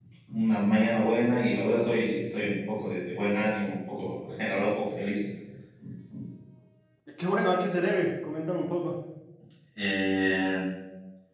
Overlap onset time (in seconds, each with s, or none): none